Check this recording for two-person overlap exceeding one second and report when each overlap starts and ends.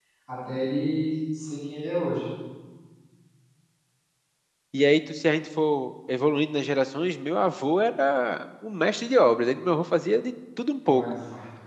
none

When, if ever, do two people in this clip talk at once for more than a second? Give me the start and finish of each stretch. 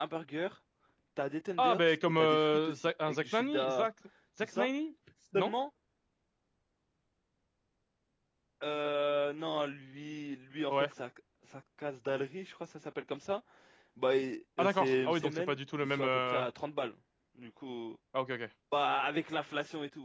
1.6-3.9, 14.6-16.4

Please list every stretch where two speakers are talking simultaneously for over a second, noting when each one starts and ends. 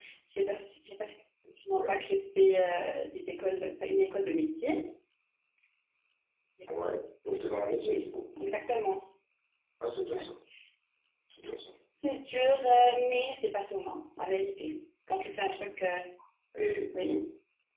none

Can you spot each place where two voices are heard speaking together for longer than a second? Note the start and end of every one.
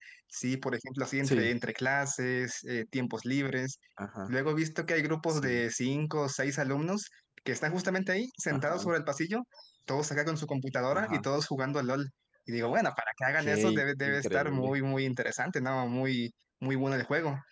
13.4-14.7

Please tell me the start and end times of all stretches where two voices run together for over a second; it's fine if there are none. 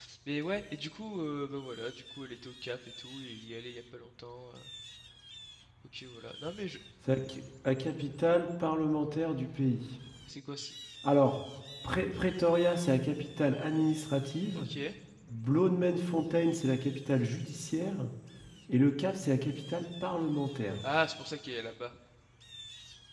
none

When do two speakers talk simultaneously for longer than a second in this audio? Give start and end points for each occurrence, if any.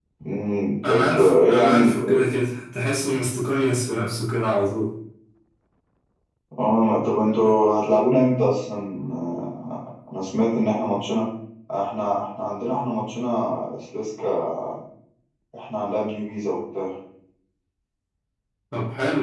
0.8-2.2

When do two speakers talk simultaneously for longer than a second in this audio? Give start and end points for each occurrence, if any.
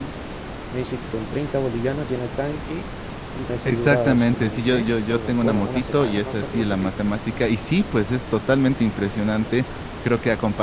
3.6-6.9

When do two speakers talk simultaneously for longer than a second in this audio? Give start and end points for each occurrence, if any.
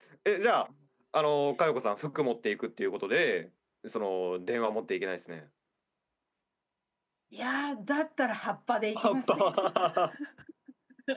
none

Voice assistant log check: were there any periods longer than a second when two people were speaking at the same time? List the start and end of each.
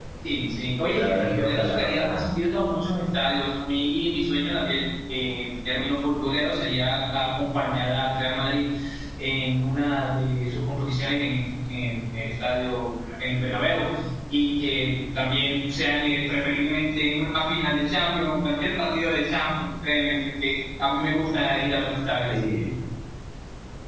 0.9-2.3

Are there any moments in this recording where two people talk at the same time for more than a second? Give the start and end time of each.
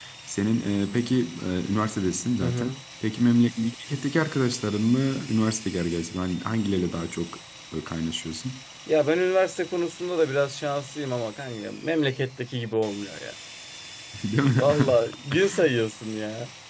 none

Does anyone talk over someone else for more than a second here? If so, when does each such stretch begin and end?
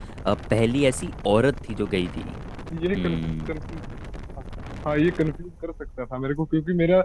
none

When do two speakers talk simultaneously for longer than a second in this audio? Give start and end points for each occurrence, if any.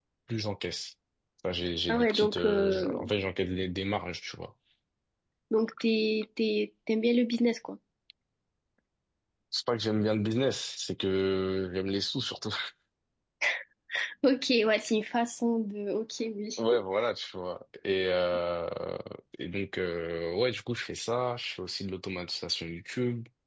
1.9-3.1

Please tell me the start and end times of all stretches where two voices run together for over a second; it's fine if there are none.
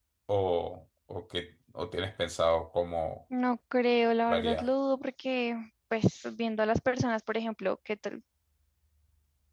none

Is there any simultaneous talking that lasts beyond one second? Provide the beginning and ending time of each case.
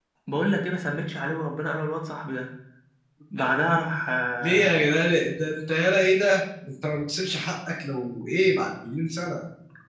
none

